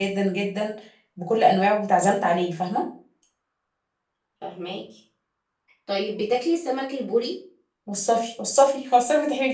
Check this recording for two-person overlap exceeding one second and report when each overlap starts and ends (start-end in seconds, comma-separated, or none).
none